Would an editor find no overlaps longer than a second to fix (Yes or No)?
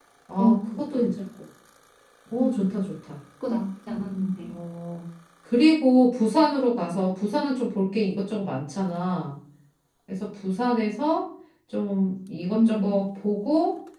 Yes